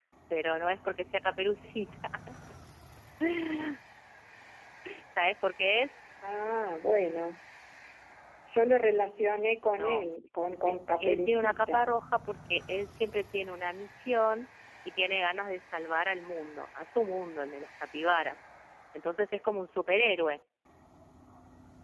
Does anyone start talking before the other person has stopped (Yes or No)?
Yes